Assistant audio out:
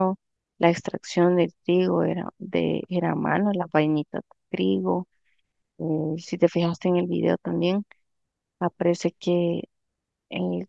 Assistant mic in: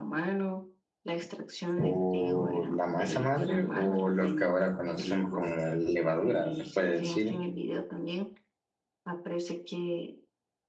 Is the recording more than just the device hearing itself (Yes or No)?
Yes